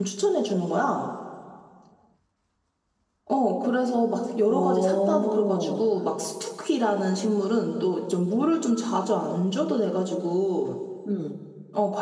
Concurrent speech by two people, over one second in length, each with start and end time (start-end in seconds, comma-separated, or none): 4.5-5.8